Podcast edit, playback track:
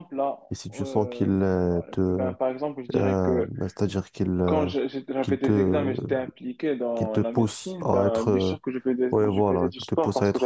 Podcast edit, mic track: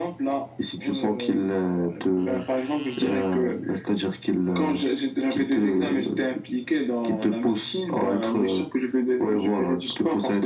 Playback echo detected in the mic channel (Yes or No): Yes